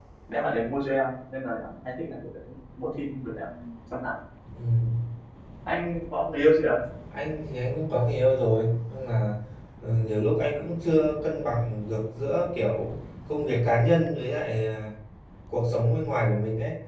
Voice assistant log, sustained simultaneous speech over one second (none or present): none